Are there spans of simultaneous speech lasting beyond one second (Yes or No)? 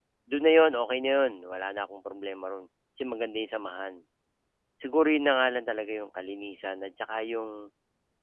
No